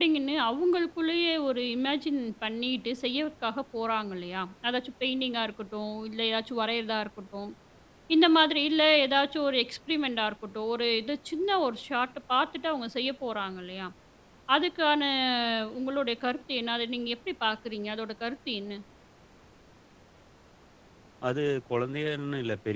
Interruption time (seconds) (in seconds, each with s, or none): none